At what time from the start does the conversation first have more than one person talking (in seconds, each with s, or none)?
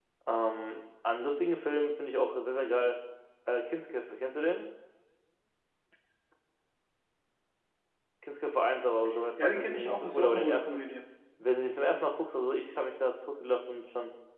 9.4 s